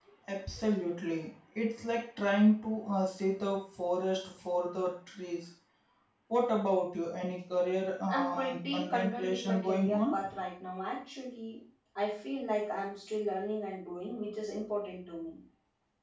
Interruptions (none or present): present